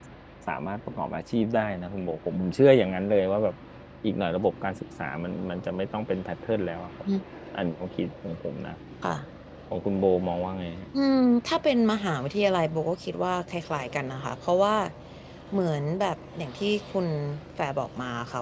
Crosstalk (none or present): none